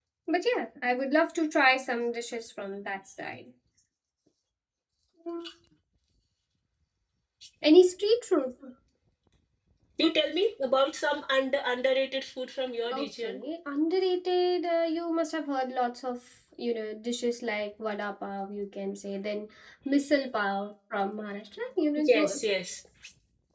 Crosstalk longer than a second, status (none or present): none